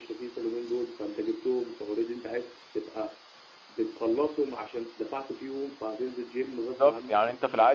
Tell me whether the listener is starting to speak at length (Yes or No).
Yes